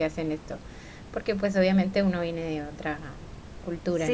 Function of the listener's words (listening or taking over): taking over